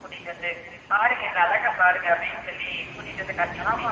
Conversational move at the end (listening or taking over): taking over